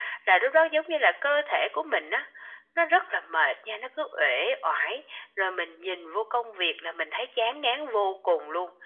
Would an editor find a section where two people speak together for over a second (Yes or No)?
No